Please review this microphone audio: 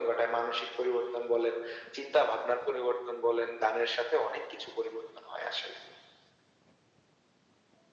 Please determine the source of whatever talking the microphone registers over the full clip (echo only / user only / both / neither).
echo only